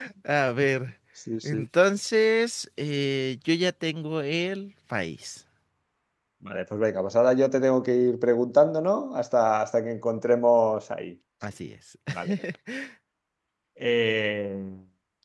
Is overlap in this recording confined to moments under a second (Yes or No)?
Yes